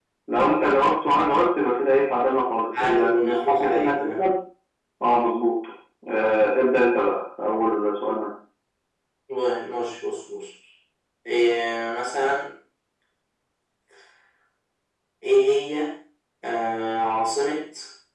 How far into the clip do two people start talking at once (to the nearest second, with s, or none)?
3 s